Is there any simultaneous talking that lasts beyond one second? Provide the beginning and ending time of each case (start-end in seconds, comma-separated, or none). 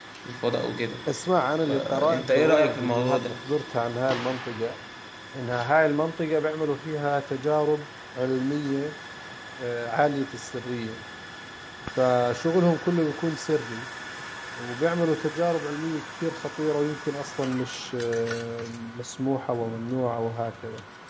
1.7-3.4